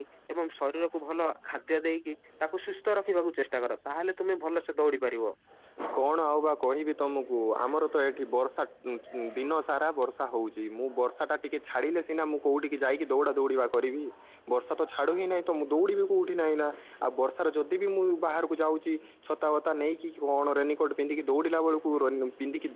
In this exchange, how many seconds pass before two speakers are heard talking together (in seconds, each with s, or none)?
none